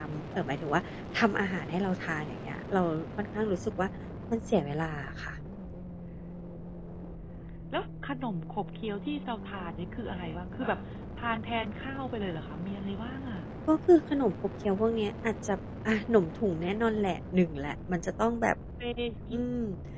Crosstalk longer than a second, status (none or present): none